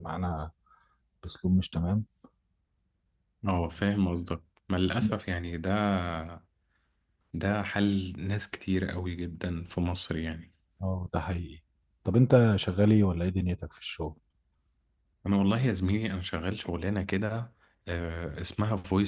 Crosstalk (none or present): none